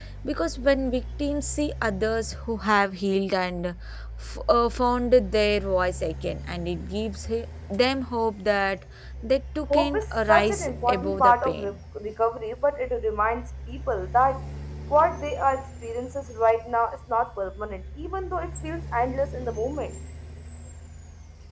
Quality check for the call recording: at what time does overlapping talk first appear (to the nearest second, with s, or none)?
10 s